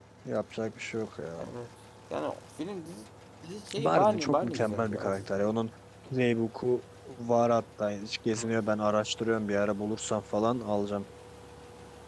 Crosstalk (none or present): present